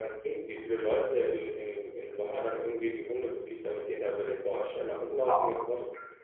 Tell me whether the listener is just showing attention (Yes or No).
Yes